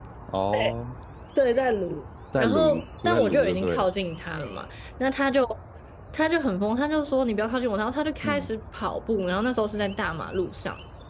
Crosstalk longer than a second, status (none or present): present